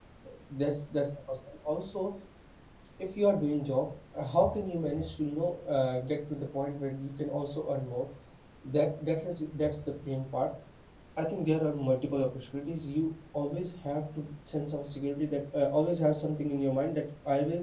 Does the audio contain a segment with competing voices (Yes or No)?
No